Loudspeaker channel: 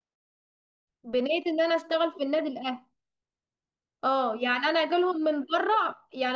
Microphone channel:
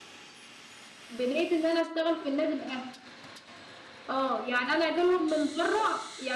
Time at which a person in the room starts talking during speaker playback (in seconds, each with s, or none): none